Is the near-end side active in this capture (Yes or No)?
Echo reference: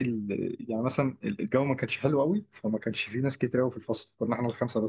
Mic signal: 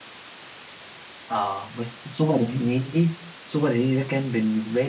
Yes